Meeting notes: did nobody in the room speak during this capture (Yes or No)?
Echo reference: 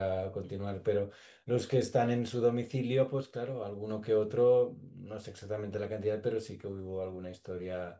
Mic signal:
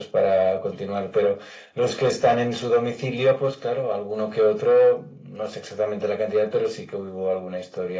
Yes